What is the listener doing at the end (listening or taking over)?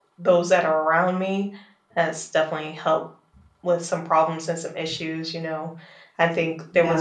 listening